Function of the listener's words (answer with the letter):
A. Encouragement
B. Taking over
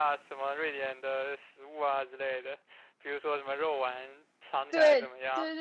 B